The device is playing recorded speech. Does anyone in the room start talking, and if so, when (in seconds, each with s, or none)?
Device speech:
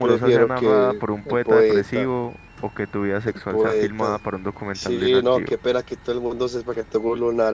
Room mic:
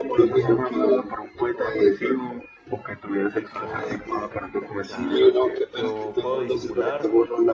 3.3 s